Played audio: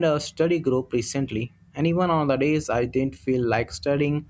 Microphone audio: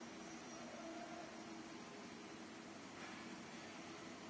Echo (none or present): none